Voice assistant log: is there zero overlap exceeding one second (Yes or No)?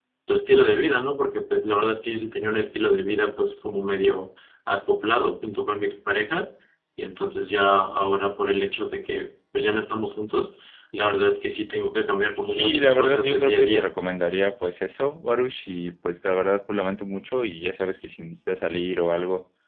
No